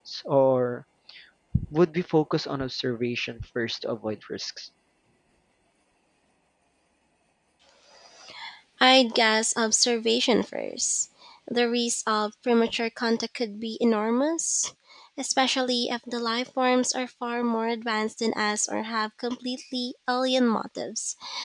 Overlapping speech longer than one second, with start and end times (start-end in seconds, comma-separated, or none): none